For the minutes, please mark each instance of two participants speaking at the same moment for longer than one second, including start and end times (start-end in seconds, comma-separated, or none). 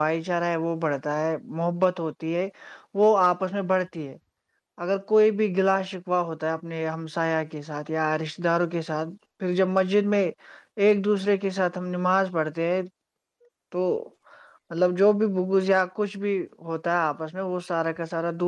none